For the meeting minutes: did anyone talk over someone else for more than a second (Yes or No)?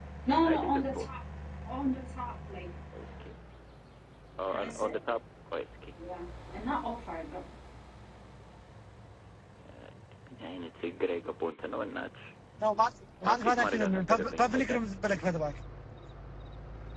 Yes